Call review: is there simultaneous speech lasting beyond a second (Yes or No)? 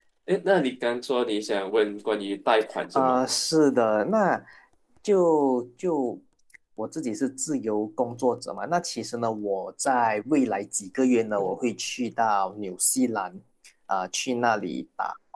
No